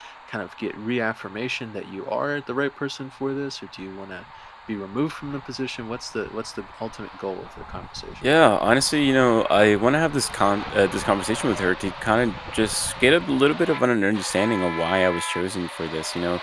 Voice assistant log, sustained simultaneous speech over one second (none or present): none